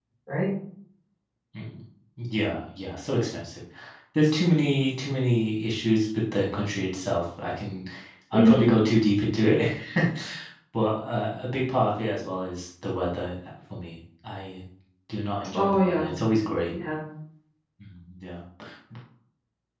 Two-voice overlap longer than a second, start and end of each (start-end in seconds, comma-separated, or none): none